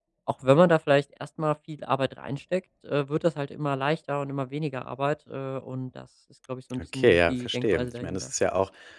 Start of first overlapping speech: 6.7 s

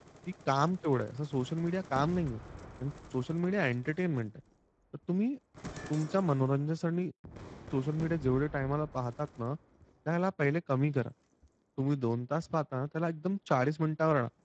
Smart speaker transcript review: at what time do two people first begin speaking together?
none

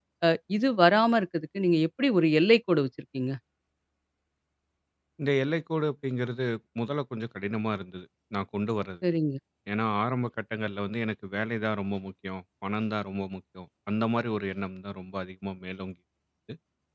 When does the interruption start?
none

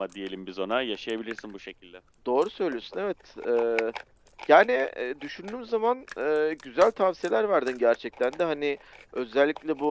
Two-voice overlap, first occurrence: none

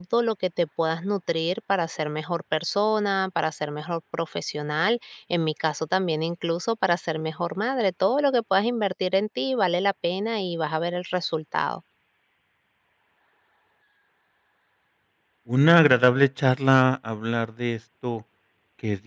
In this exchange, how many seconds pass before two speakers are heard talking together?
none

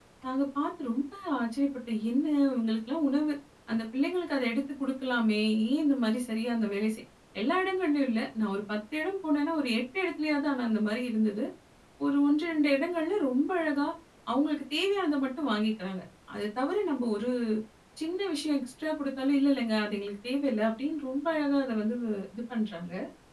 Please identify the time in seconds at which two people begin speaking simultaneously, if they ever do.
none

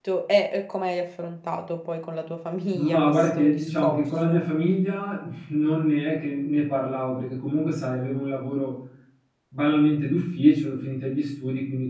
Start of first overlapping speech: 2.7 s

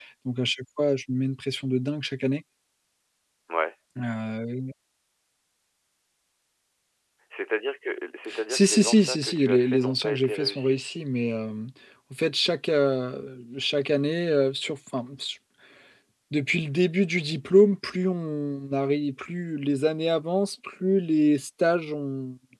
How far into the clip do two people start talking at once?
8.2 s

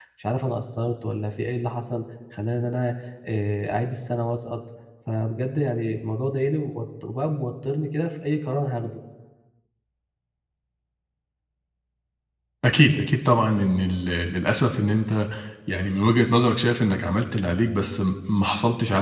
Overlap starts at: none

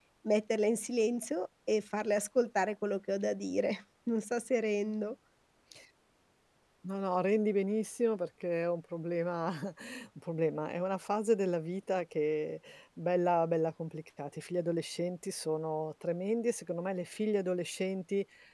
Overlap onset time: none

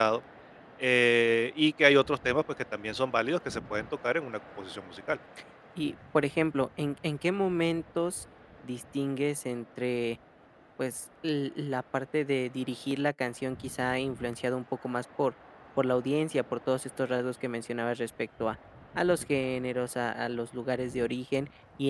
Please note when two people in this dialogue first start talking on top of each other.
none

